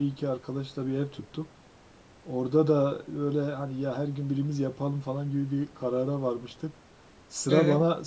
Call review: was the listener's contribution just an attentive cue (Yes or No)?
Yes